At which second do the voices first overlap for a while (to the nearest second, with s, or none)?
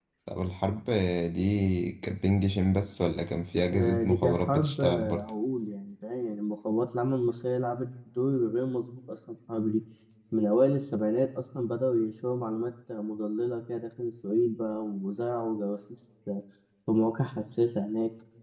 4 s